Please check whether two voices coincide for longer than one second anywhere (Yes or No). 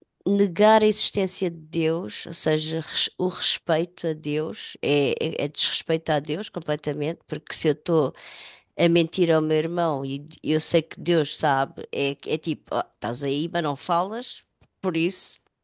No